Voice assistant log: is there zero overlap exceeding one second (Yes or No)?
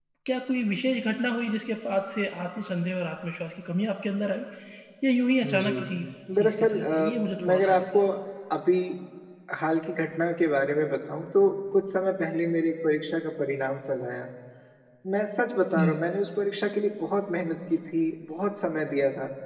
No